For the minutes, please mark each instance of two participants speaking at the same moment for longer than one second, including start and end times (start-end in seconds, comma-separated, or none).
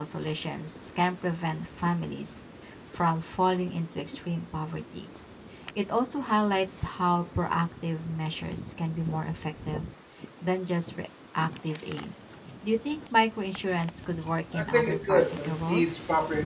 14.6-15.9